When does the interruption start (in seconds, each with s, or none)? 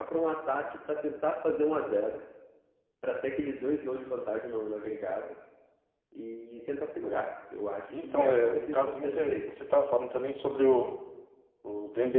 7.9 s